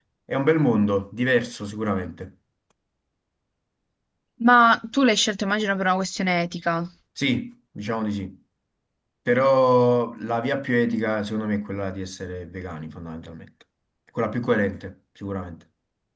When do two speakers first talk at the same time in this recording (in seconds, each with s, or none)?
none